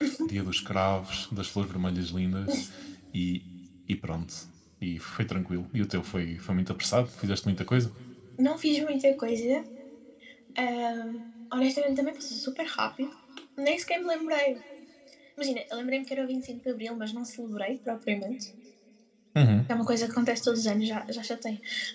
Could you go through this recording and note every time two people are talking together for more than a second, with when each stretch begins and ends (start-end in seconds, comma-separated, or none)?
none